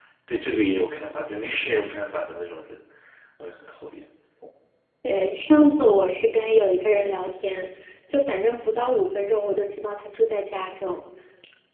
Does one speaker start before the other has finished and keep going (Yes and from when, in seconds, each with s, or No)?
No